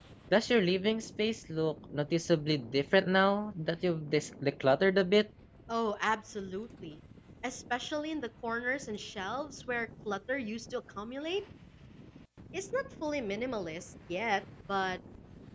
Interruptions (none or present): none